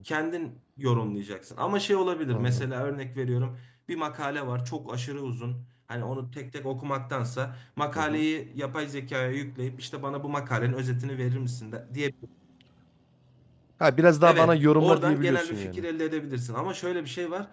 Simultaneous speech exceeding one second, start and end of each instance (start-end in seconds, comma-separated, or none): 14.2-15.8